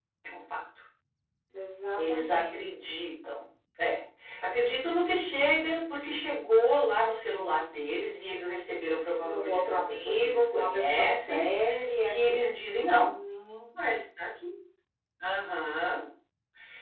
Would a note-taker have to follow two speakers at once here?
Yes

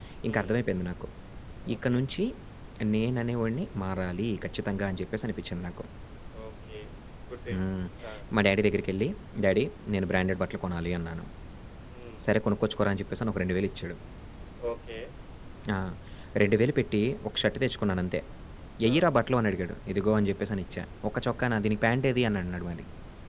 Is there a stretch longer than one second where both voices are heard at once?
No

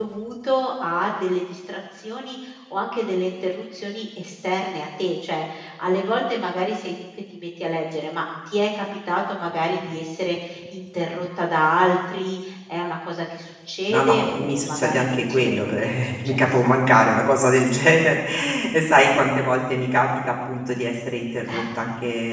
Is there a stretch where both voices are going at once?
Yes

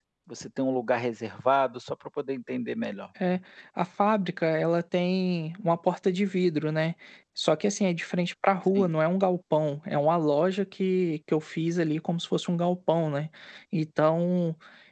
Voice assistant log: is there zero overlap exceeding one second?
Yes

